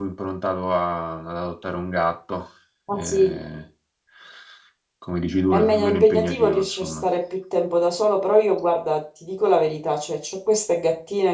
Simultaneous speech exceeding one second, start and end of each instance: 5.5-7.0

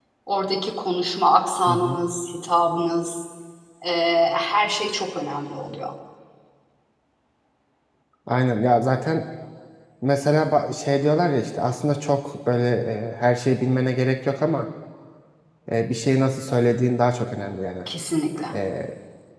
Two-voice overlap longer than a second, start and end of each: none

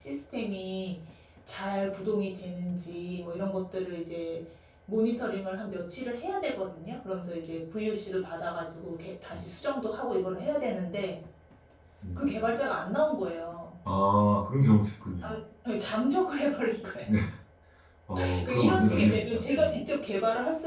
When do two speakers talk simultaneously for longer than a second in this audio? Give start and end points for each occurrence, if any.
18.4-19.8

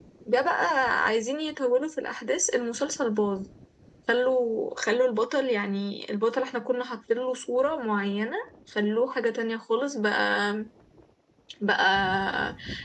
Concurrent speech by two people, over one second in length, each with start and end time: none

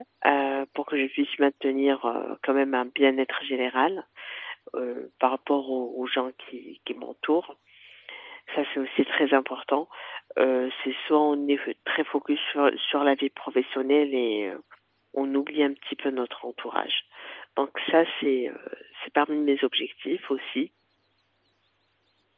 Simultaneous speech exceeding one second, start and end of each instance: none

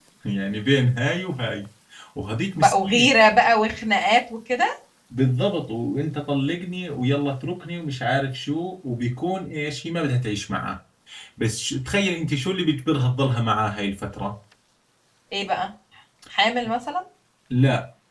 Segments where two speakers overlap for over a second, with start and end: none

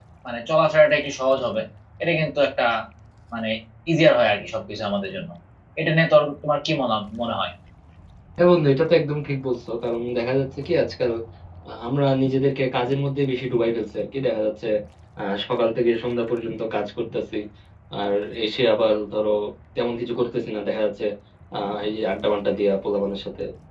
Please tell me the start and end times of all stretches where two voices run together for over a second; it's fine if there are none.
none

